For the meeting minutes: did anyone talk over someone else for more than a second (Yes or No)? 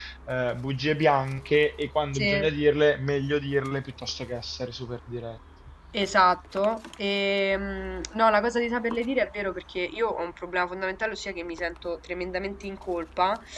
No